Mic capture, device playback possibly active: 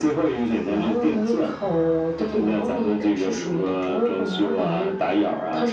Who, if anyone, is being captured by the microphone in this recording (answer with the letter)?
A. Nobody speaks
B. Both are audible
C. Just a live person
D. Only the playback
D